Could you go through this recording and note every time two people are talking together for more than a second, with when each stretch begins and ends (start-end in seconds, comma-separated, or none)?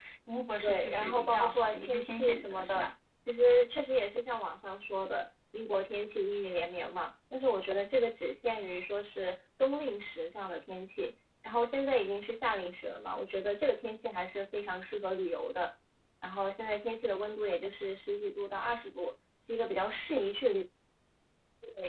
0.6-2.9